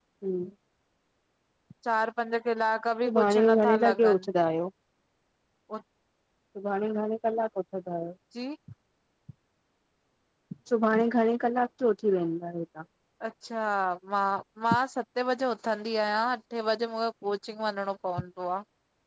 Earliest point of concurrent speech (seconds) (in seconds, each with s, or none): 3.0 s